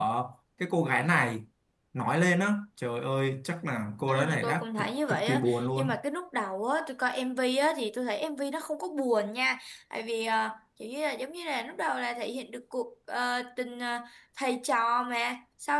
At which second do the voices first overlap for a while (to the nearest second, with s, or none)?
4 s